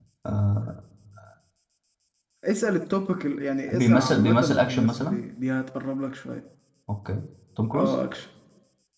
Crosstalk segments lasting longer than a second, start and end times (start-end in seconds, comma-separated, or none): 3.7-5.2